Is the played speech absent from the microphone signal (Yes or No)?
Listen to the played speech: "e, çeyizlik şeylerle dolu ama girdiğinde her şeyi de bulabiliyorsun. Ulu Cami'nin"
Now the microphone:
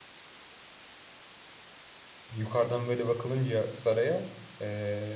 Yes